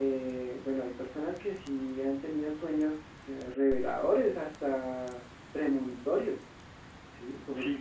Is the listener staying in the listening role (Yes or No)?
No